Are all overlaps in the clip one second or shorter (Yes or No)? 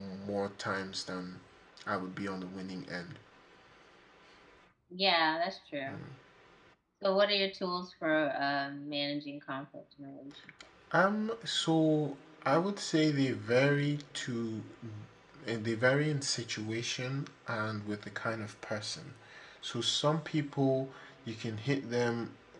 Yes